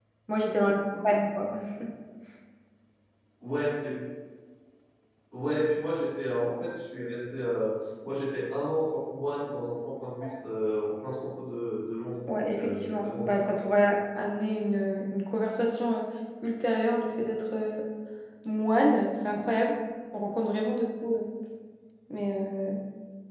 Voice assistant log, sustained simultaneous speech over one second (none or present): present